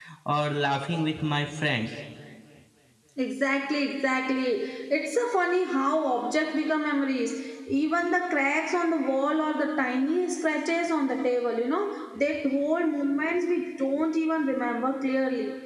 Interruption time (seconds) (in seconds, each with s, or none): none